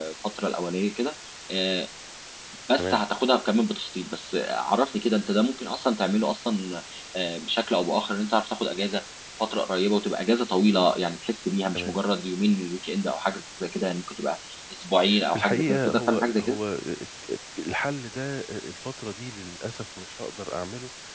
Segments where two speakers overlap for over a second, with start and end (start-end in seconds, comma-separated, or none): 15.3-16.6